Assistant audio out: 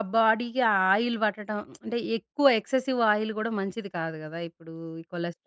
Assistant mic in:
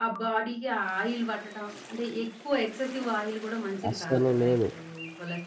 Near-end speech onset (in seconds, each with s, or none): 3.9 s